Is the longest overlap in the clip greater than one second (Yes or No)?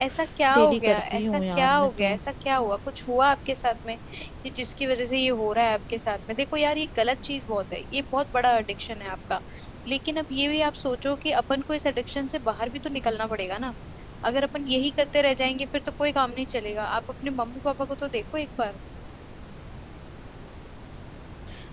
Yes